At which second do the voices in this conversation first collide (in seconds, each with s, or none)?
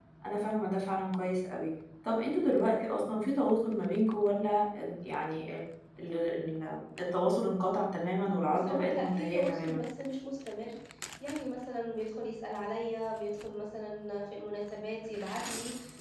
8.5 s